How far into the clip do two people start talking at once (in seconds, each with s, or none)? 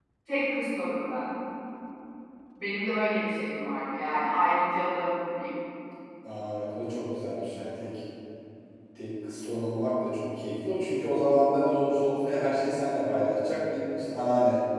none